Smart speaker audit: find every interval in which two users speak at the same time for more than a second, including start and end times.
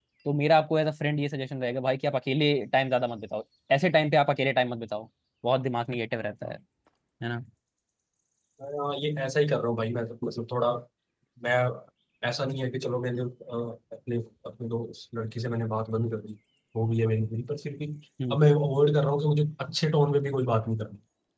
none

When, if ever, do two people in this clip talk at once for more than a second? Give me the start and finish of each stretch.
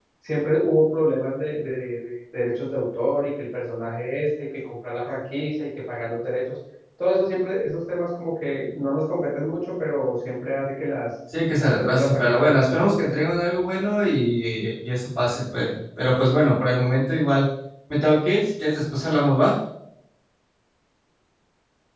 11.6-13.0

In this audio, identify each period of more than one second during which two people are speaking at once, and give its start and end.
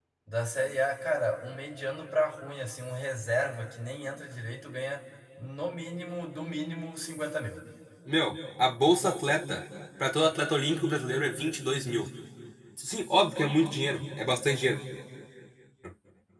none

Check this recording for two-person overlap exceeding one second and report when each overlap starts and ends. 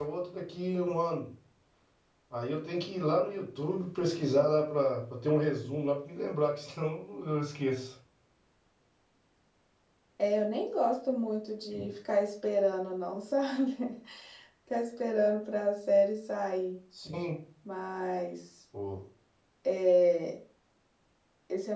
none

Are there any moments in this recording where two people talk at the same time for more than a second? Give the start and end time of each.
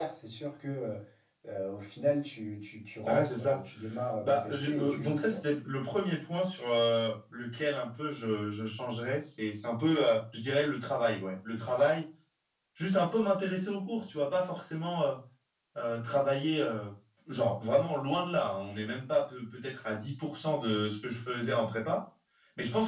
4.2-5.4

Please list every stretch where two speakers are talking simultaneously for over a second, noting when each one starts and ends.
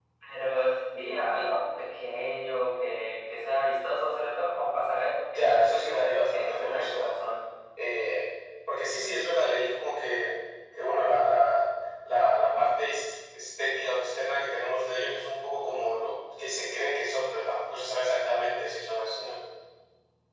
5.3-7.1

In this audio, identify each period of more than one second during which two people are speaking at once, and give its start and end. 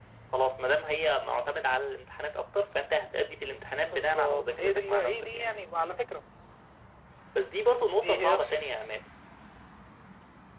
3.9-5.4

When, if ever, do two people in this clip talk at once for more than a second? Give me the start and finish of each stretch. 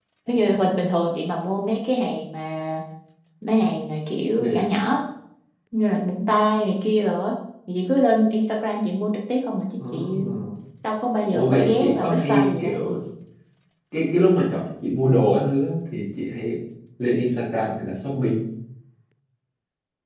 11.3-12.8

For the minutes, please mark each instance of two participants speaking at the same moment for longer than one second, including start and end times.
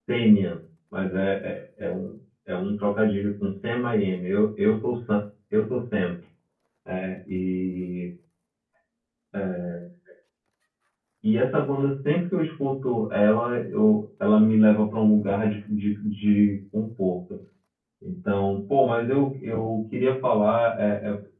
none

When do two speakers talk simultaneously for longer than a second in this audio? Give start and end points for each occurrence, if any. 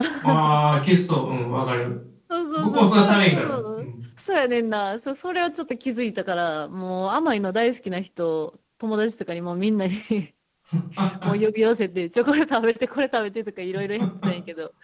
2.6-3.9

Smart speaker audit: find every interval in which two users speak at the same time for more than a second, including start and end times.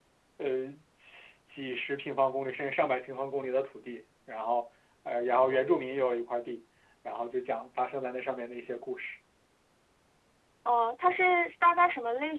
none

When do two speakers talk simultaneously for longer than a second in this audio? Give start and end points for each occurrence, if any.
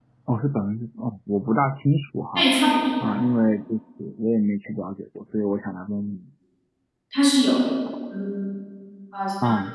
none

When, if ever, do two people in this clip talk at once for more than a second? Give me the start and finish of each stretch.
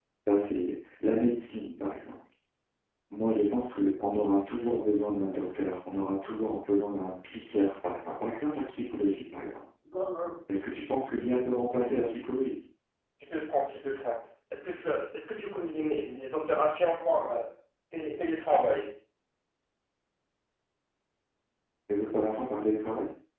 none

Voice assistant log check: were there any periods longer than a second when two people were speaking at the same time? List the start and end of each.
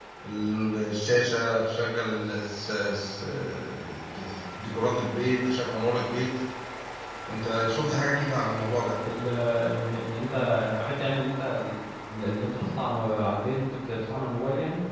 none

